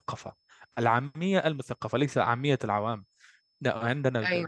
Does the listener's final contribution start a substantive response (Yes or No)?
No